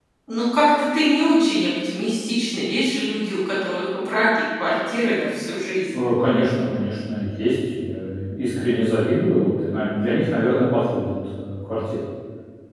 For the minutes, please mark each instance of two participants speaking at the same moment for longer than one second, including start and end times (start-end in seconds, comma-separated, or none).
none